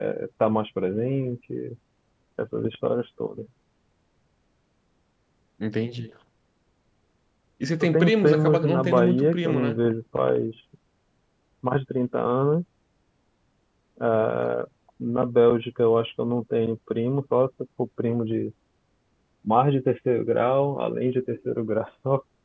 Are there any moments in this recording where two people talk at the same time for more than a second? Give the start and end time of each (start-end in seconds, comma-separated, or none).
7.8-9.8